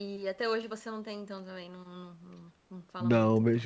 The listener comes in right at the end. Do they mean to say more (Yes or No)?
Yes